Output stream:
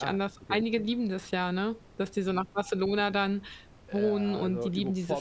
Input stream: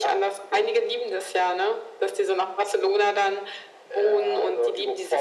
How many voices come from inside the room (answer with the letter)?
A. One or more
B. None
B